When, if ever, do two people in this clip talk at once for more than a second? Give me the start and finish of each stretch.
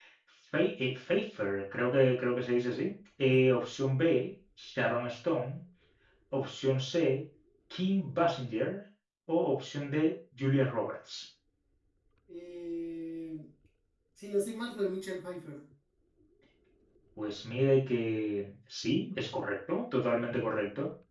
none

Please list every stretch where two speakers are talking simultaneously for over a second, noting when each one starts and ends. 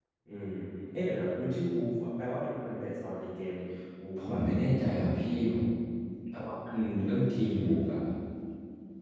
none

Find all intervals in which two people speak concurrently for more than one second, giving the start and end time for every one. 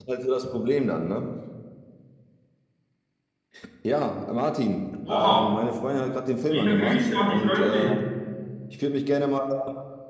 6.5-8.0

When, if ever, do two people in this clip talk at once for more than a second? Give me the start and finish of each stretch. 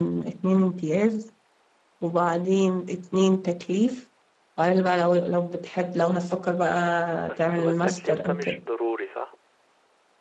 7.3-8.6

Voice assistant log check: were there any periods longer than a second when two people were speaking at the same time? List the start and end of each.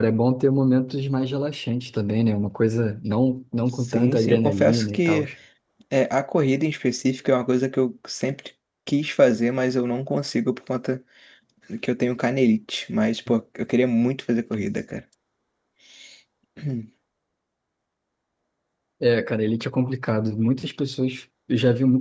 3.8-5.2

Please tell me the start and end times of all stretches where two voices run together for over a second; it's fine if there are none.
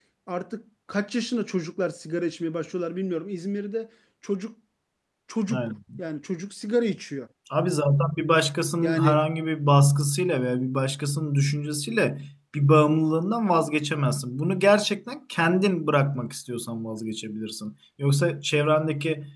none

